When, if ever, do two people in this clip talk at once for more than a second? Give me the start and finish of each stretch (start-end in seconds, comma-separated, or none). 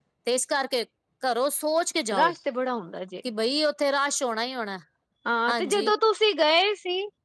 none